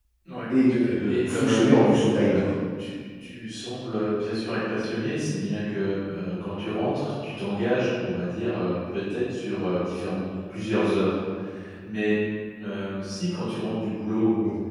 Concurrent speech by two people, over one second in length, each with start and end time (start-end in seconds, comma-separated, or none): 1.0-2.3